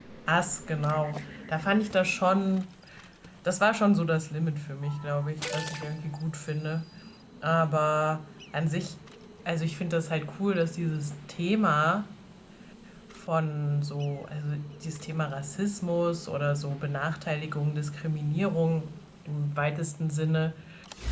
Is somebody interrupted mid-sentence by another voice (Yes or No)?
No